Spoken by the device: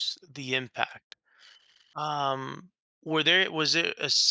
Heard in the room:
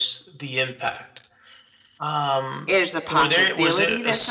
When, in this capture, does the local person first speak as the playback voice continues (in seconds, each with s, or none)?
2.7 s